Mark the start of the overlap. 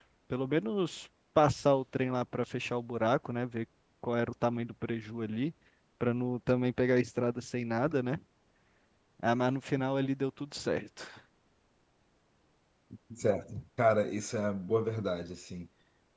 none

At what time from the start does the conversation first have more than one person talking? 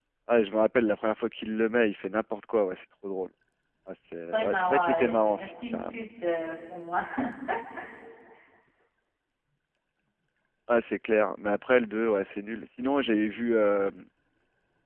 4.3 s

